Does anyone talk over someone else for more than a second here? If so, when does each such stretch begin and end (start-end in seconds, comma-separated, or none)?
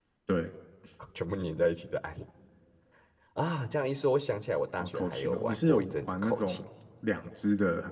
4.8-6.6